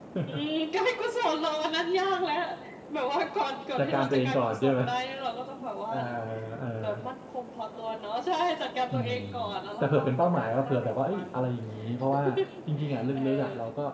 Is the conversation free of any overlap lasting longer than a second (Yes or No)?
No